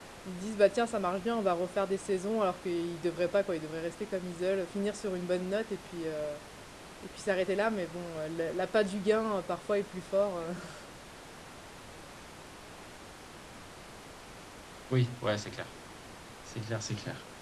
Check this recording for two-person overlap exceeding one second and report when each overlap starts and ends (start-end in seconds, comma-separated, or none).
none